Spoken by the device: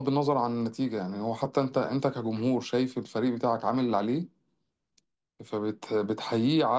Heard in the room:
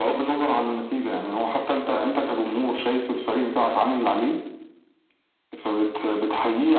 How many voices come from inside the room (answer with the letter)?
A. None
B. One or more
A